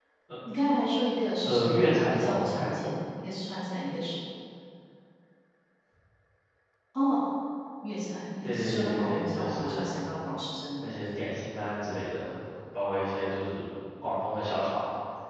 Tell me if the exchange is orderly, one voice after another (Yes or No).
No